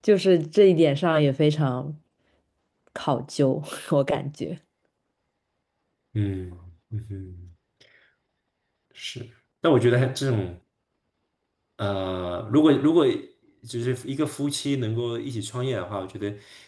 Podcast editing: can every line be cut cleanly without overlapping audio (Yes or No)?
Yes